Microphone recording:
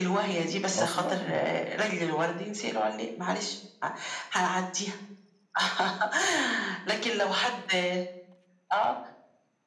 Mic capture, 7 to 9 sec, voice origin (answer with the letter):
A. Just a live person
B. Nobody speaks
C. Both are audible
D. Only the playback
D